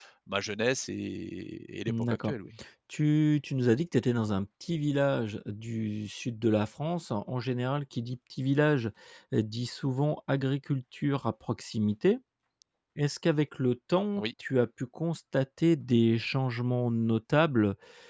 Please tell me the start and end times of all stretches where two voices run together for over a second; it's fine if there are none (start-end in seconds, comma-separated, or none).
none